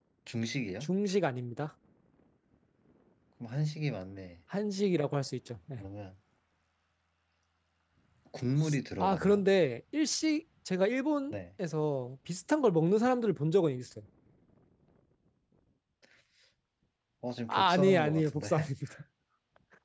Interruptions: present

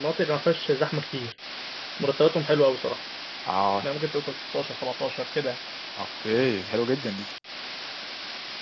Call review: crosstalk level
none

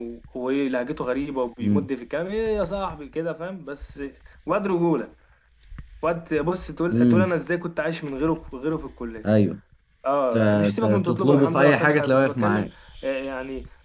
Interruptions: present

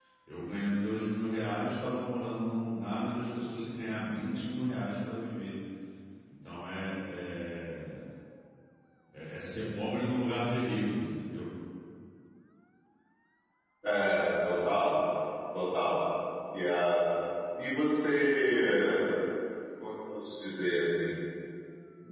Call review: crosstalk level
none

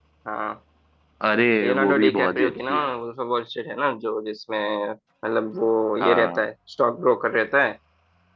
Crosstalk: present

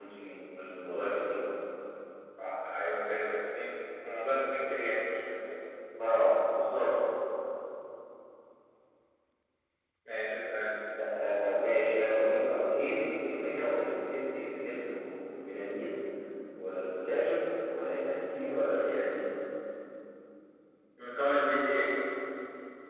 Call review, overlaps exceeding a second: none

